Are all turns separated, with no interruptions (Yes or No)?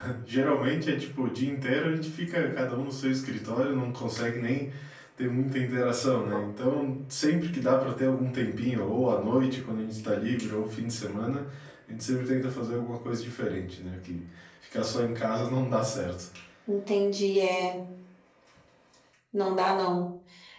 Yes